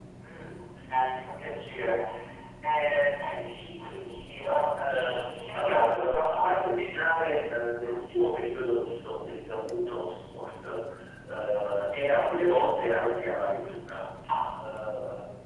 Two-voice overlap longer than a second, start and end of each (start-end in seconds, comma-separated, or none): 4.7-6.6